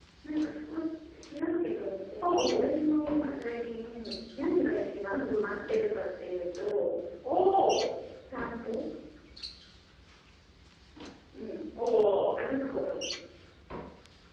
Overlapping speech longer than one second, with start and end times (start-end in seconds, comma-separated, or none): none